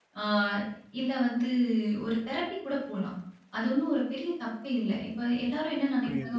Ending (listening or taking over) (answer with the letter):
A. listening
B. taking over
A